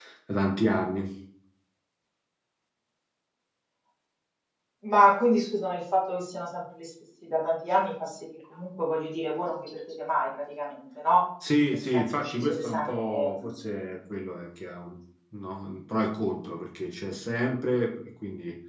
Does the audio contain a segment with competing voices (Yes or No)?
Yes